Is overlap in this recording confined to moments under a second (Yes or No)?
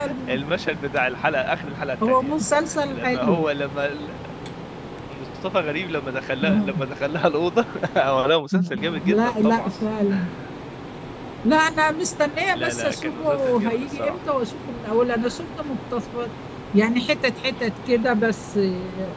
No